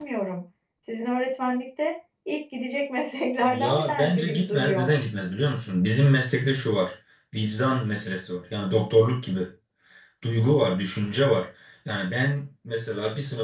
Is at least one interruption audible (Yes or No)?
Yes